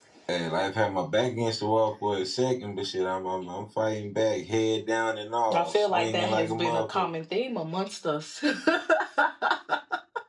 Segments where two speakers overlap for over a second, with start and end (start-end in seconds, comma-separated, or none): 5.5-7.1